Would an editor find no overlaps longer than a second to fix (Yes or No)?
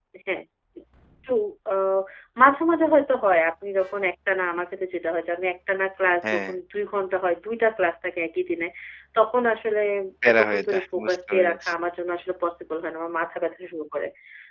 No